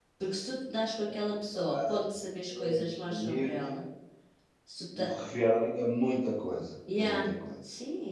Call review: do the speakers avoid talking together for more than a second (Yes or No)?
No